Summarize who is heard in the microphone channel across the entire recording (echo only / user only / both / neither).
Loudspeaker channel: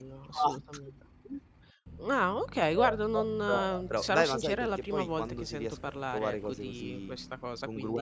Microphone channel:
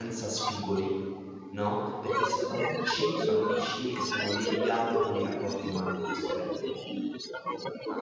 both